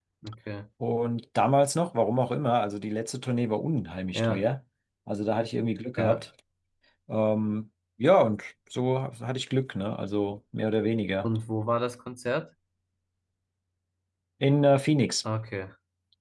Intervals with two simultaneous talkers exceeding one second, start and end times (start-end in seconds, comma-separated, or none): none